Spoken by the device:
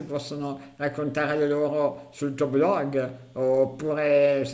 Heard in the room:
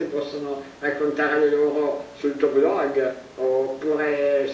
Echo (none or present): present